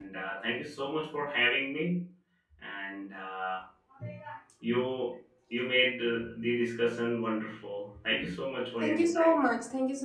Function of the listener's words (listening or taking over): taking over